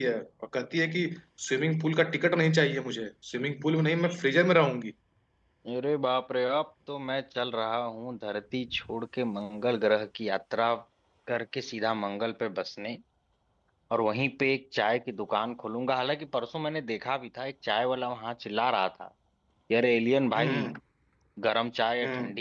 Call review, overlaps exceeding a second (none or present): none